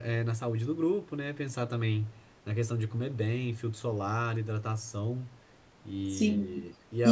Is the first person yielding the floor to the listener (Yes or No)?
Yes